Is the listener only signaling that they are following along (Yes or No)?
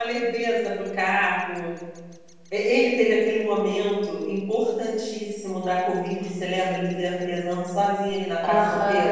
No